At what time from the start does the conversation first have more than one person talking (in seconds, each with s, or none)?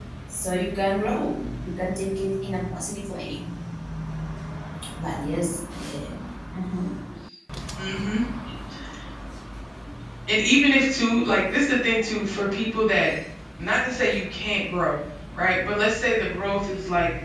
none